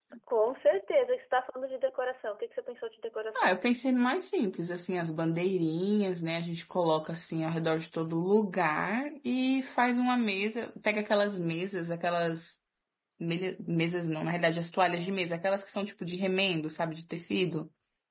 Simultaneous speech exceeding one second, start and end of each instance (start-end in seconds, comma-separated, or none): none